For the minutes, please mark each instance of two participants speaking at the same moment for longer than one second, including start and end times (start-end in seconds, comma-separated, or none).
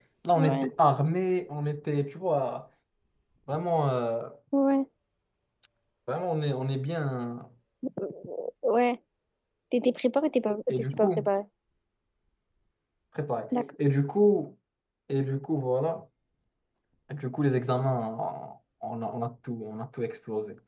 none